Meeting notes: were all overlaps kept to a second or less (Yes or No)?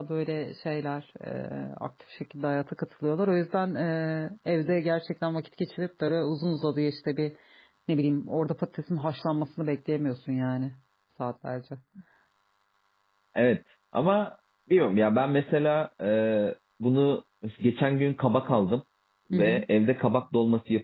Yes